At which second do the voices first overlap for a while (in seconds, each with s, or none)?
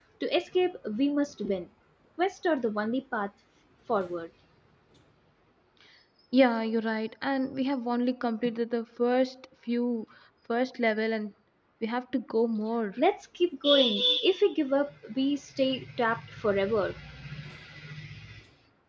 none